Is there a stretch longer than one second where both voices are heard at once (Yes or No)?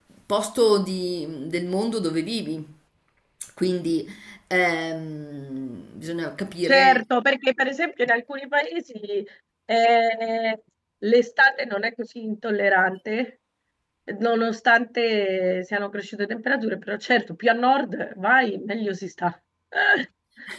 No